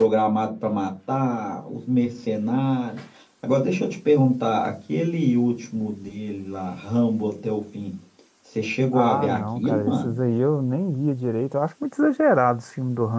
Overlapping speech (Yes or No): Yes